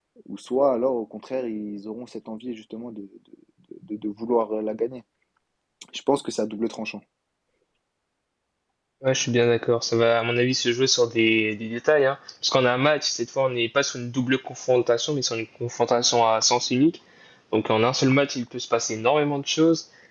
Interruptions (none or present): none